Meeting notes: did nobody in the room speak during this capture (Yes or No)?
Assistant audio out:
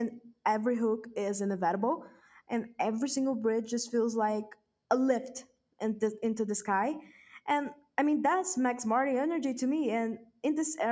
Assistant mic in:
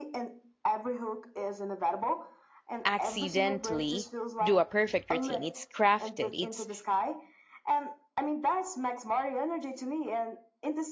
No